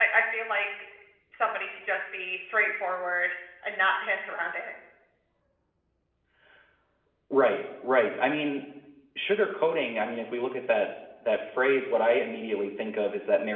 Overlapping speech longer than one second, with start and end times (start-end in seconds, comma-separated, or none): none